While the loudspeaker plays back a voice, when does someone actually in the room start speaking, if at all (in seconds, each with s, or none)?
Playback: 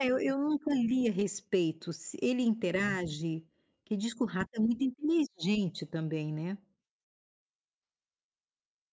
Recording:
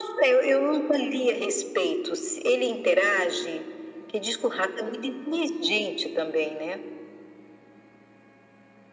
none